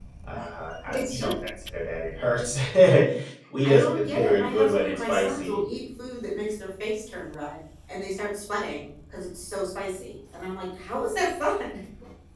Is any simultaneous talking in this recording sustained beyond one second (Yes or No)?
Yes